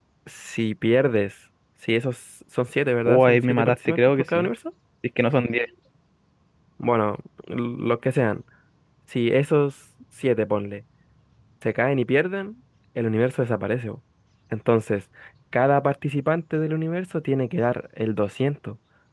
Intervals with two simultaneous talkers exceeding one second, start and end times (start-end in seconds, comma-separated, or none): 3.1-4.5